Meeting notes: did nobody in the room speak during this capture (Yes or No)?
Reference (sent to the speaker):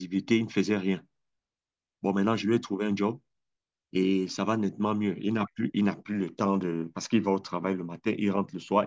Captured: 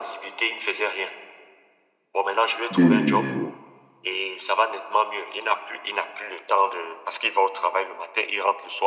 No